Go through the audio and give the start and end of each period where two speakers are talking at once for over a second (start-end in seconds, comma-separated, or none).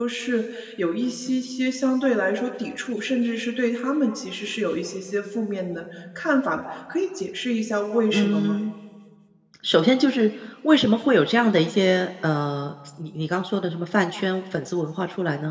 none